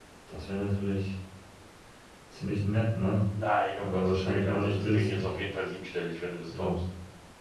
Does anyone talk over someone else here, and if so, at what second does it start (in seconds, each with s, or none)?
3.8 s